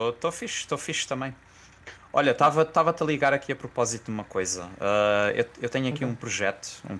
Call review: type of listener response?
listening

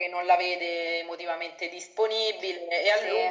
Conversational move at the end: listening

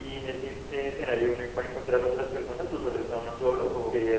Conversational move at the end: taking over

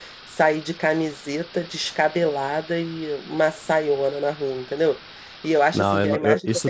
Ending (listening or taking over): taking over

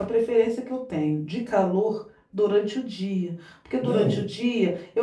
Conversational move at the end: listening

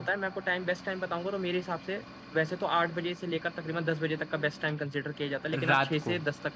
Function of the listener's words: listening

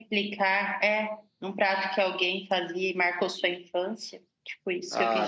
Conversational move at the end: taking over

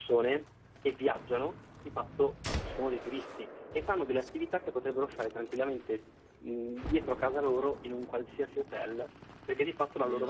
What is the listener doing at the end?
listening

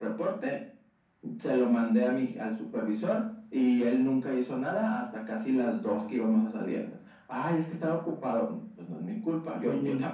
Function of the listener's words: listening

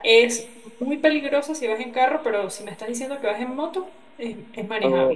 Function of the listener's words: taking over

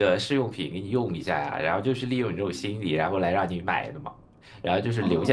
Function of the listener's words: taking over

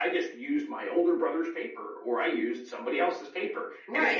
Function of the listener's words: taking over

